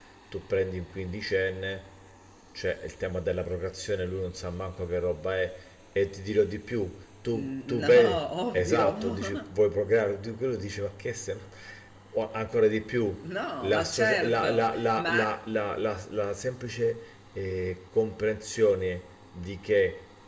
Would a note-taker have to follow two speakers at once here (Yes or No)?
Yes